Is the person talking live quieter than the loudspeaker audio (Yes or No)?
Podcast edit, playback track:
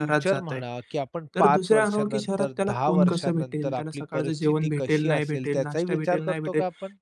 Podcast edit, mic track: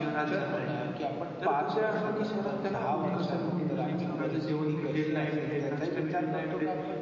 Yes